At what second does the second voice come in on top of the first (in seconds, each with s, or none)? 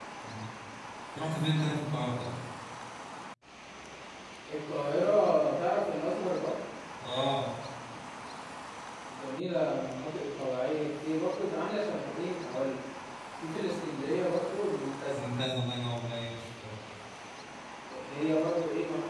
none